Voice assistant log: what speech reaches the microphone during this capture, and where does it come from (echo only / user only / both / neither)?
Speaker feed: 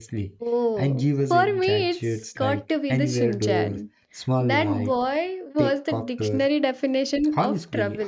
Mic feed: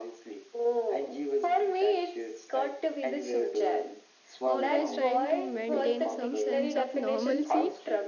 both